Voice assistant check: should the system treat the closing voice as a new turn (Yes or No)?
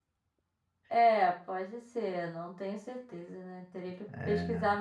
No